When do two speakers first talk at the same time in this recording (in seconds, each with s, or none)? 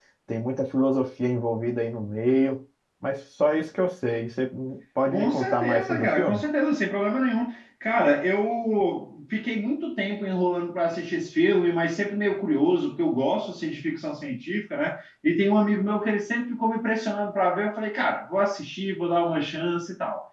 5.1 s